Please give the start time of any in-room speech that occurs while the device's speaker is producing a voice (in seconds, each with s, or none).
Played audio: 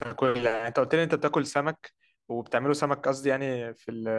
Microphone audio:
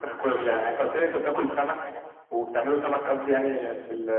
none